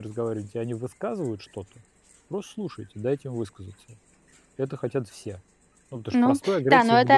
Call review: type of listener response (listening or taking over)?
taking over